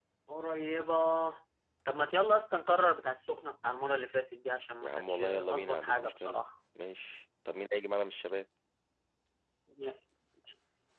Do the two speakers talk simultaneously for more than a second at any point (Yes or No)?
Yes